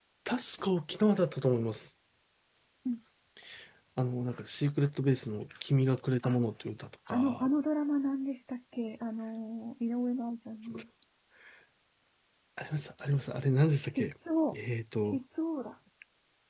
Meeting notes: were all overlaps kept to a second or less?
Yes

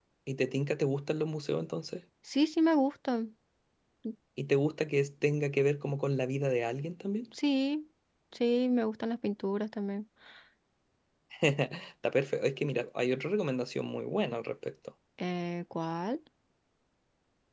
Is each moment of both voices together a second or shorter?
Yes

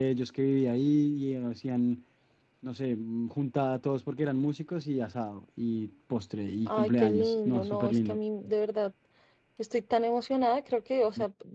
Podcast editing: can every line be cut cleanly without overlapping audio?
No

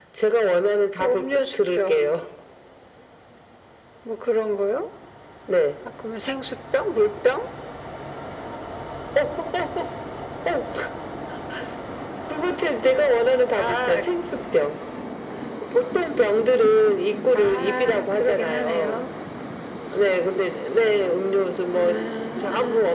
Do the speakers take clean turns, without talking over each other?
No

